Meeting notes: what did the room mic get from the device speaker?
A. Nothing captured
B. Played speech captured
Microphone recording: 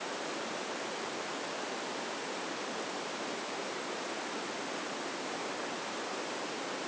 A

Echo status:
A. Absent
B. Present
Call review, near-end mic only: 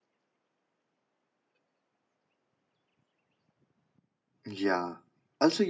A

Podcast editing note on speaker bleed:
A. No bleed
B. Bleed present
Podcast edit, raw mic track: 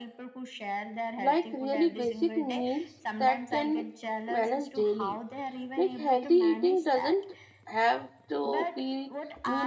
B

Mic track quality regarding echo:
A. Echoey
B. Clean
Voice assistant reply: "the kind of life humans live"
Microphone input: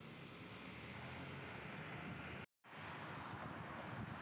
B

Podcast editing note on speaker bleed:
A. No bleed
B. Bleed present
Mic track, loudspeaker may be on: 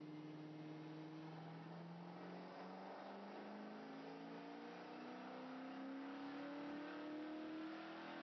A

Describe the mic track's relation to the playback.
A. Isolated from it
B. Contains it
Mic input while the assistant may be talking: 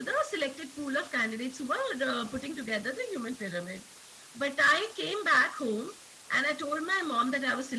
B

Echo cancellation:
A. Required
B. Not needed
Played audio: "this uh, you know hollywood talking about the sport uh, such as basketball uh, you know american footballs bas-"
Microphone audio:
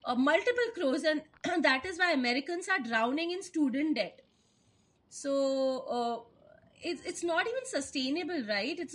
B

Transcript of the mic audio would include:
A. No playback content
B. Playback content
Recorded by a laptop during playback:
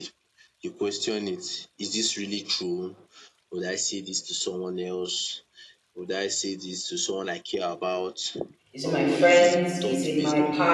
B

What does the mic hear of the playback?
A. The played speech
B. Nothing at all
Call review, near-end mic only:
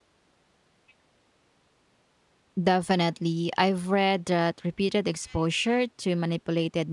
B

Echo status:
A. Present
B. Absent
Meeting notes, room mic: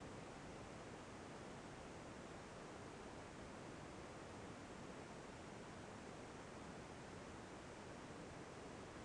B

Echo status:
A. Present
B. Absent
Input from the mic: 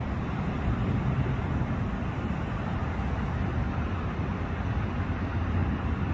B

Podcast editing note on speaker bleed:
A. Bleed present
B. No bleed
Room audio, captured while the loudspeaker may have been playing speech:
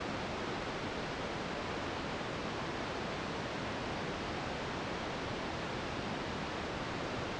B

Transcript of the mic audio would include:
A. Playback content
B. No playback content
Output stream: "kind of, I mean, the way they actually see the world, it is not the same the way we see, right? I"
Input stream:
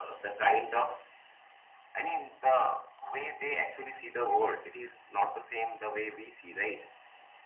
A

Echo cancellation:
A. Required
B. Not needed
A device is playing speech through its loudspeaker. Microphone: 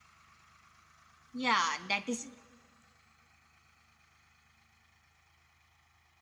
B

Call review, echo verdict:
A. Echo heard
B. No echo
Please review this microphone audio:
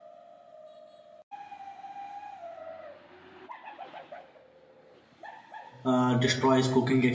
B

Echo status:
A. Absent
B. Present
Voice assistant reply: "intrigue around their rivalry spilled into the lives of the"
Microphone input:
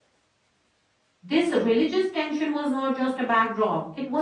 A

